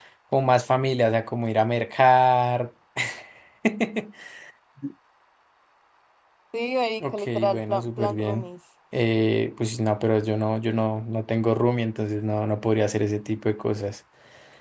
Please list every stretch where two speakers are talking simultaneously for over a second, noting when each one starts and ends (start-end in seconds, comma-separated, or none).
7.1-8.4